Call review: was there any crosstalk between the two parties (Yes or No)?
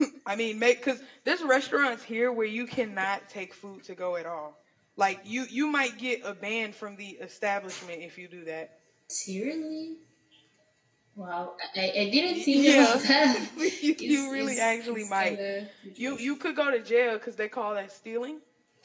Yes